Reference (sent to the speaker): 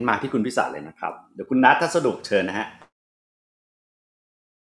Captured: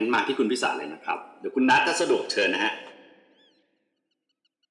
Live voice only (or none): none